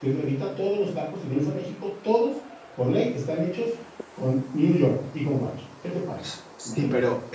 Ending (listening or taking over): taking over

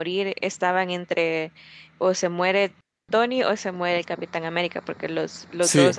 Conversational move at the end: listening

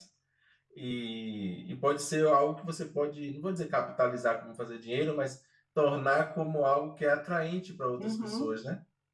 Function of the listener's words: taking over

